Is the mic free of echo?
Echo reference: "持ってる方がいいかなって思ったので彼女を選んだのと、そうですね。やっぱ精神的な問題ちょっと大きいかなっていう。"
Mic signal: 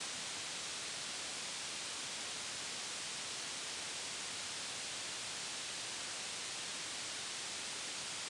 Yes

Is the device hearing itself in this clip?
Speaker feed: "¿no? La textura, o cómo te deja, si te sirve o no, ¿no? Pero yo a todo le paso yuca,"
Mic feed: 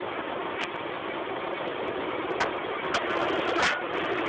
No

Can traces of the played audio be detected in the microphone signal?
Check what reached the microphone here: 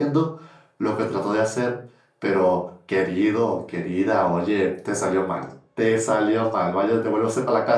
No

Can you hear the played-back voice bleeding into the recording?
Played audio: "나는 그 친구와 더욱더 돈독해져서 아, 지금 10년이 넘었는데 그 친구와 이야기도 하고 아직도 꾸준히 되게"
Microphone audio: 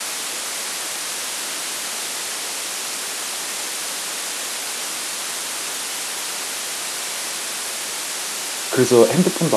No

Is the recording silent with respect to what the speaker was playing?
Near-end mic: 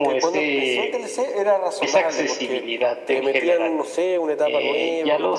No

